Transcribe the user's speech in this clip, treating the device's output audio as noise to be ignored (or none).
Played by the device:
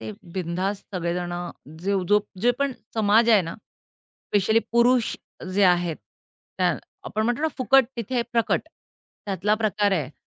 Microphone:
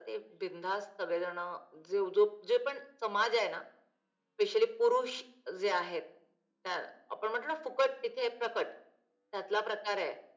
none